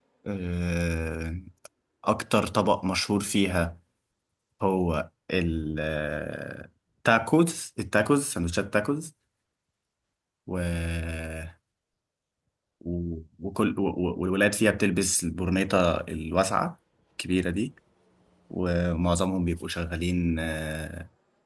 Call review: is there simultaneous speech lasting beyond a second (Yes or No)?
No